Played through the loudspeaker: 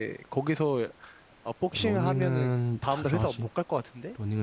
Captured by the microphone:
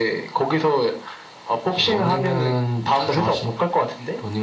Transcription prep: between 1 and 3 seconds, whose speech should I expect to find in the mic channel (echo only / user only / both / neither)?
echo only